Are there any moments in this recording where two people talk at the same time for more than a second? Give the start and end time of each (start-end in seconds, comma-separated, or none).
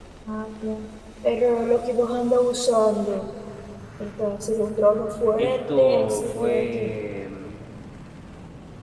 5.4-6.9